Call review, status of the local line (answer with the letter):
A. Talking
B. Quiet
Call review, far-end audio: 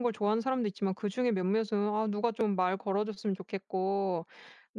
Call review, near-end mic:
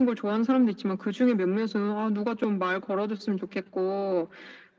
B